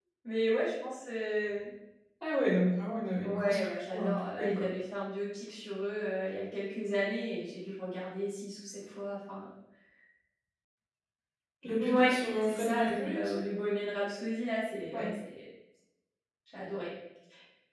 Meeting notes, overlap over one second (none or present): present